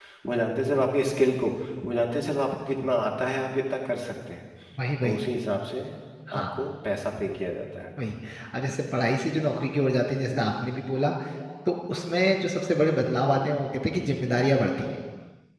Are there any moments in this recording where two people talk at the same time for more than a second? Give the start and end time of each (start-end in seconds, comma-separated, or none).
none